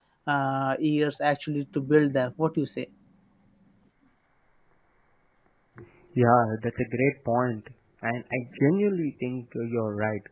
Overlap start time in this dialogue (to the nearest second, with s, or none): none